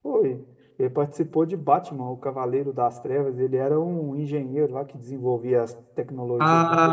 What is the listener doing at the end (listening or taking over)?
taking over